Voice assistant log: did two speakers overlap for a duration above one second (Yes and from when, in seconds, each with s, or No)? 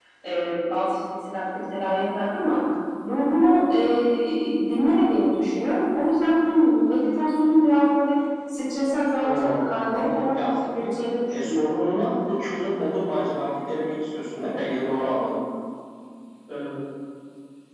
Yes, from 9.2 s